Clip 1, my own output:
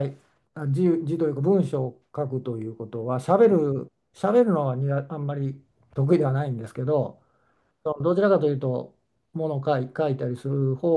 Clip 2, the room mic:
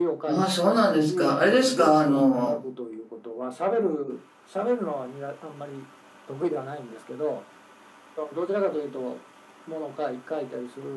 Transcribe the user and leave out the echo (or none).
ああ、そうなんですか。あれですか、あの、